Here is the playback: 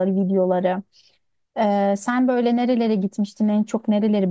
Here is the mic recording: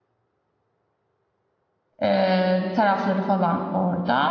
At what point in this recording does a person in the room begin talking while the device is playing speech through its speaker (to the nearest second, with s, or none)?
2 s